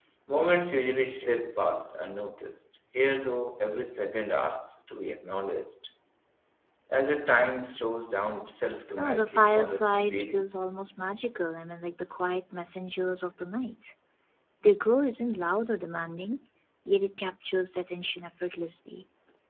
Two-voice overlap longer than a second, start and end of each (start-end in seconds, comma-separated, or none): 9.0-10.4